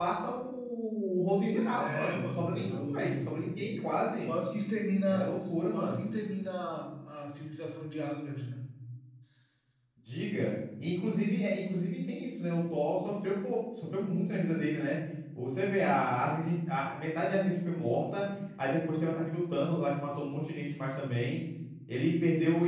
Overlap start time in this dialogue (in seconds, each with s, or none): 1.7 s